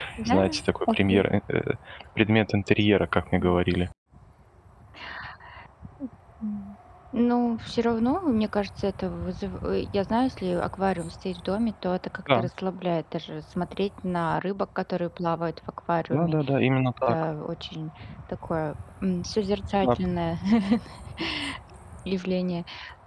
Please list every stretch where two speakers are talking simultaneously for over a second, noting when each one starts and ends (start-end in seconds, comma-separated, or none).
none